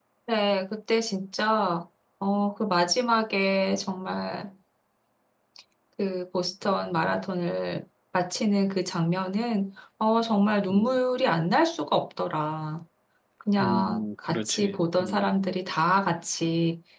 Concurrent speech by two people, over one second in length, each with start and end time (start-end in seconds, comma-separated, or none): 13.6-15.2